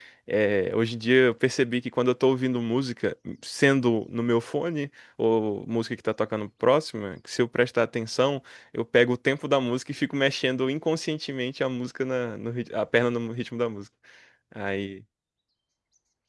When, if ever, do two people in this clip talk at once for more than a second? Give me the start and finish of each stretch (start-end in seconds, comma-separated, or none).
none